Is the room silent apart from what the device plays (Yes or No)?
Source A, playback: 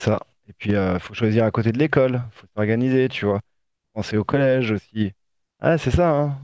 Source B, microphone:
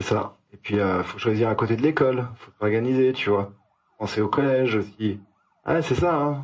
Yes